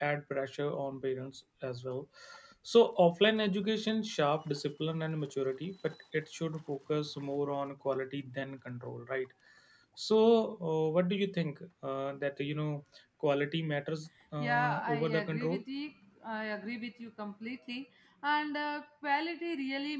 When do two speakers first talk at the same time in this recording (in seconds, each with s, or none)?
14.4 s